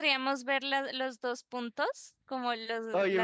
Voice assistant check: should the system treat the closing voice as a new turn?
Yes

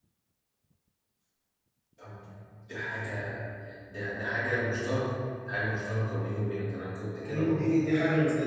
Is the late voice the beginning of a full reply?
Yes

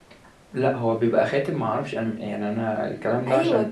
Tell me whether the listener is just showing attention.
No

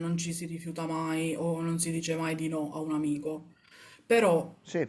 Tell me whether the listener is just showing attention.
Yes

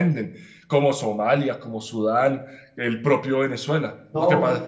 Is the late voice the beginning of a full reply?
Yes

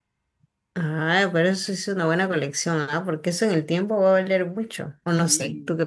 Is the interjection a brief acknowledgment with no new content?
No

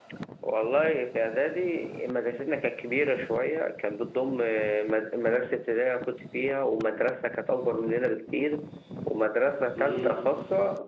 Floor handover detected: No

